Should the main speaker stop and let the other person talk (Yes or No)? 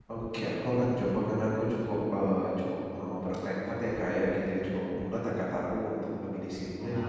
No